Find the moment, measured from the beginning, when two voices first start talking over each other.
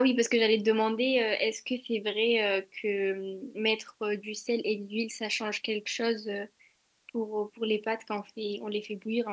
none

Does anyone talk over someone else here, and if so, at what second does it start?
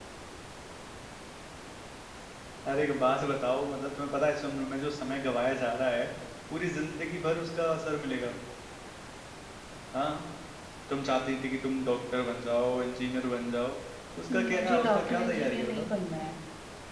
14.3 s

